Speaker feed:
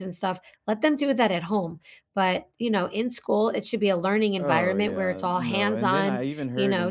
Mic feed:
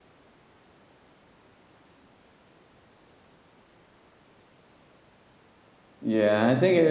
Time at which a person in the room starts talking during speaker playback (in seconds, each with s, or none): 6.0 s